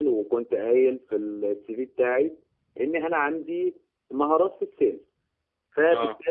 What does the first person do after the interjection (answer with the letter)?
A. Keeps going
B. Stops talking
A